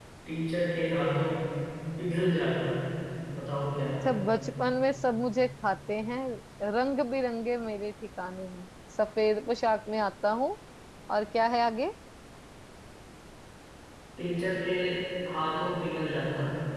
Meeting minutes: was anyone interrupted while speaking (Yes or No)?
No